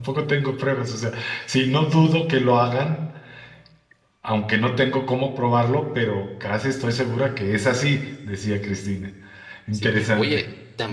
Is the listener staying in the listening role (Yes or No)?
No